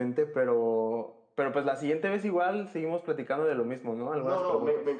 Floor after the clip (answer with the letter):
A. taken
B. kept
A